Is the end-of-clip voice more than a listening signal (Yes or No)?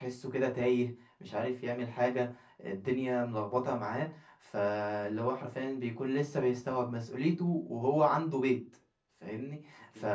No